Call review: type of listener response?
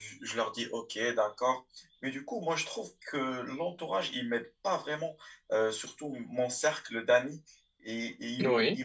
listening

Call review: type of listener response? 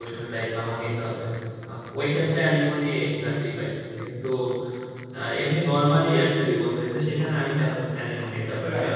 taking over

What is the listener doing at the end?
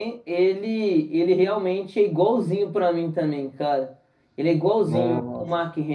listening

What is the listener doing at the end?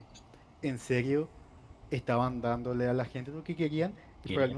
listening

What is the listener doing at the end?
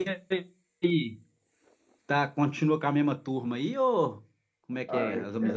taking over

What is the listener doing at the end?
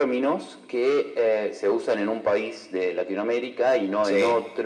listening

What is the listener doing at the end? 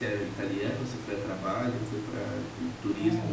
taking over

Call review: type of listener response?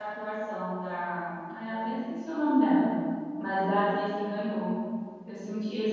taking over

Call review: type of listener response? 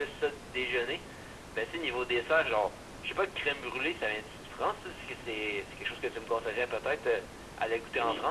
taking over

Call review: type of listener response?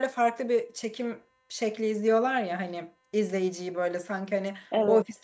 listening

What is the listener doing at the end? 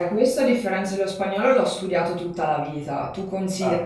listening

